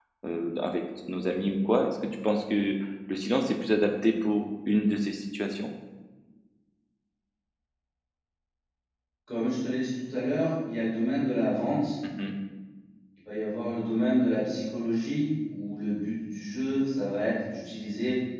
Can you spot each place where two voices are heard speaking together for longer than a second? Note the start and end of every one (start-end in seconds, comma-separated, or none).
none